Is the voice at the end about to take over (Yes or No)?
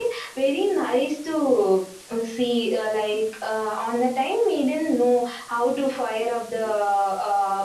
No